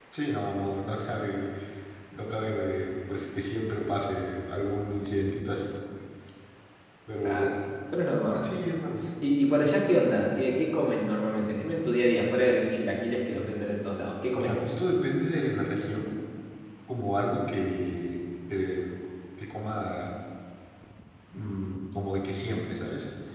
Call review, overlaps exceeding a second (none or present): none